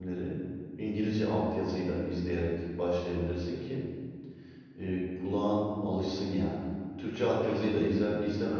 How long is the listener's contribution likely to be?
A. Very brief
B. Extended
A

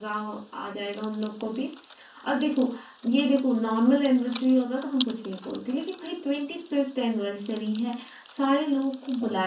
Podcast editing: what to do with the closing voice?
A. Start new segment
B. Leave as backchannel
B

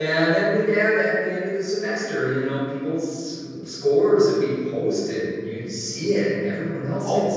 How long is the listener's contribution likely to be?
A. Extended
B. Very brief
A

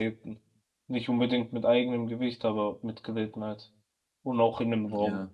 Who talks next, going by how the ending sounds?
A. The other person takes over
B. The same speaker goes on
A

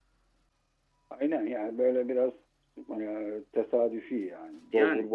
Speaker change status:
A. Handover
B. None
A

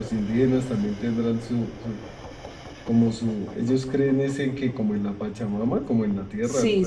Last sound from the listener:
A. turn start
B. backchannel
A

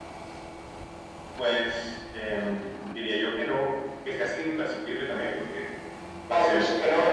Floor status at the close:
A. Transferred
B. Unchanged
A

